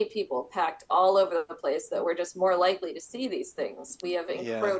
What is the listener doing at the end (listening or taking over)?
listening